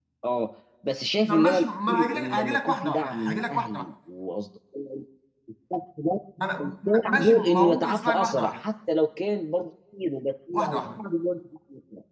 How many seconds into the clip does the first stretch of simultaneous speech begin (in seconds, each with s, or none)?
1.3 s